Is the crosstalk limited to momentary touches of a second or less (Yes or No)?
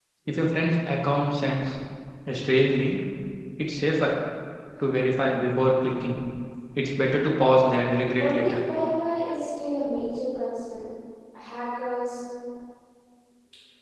Yes